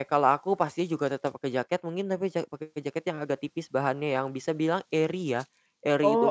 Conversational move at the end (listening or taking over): listening